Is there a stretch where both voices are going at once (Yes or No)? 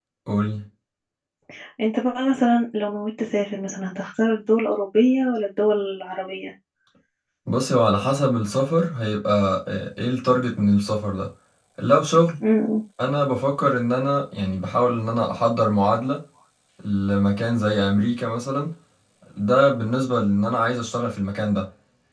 No